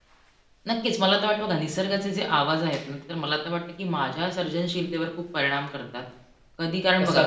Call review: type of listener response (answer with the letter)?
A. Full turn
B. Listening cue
B